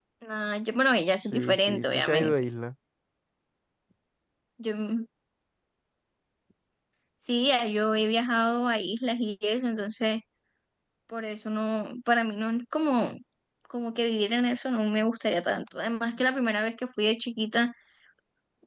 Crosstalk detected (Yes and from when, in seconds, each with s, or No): Yes, from 1.2 s